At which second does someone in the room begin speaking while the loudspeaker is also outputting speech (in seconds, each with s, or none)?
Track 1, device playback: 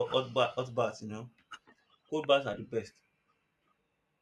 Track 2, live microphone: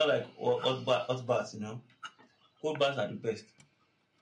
none